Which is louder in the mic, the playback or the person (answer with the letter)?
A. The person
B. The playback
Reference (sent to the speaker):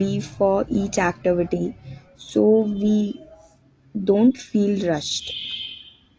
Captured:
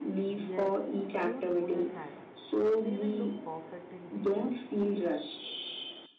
B